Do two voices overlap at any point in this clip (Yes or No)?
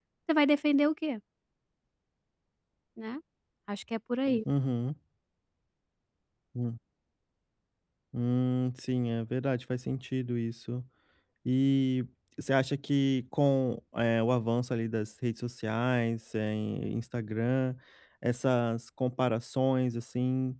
No